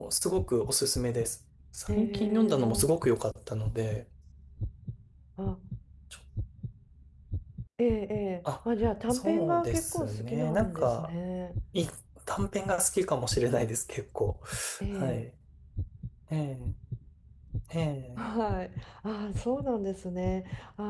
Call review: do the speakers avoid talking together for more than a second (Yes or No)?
No